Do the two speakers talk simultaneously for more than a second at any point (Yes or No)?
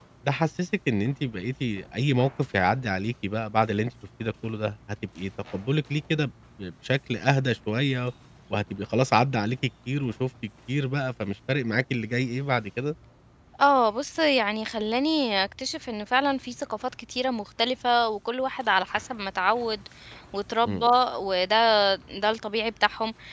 No